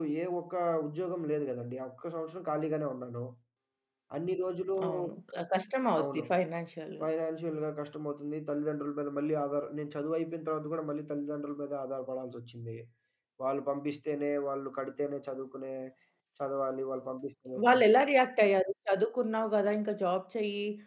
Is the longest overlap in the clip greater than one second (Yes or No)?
No